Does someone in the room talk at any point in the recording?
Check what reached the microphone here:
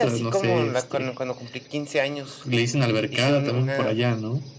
No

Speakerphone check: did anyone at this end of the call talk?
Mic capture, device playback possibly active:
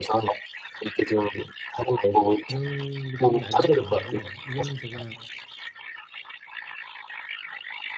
Yes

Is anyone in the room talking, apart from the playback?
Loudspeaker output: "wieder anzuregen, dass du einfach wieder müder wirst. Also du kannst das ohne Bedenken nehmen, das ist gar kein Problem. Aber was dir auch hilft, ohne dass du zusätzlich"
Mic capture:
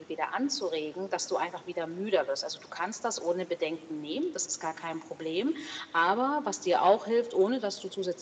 No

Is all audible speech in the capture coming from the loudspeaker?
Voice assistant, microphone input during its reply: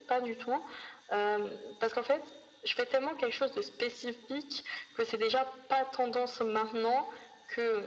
Yes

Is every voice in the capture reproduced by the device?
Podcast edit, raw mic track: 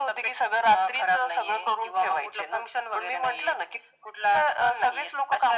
Yes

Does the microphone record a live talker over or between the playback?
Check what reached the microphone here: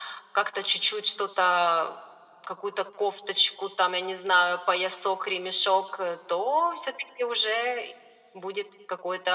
No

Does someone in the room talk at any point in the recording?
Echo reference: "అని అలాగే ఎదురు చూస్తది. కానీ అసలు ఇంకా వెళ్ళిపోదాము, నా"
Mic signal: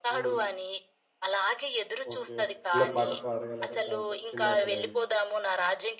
Yes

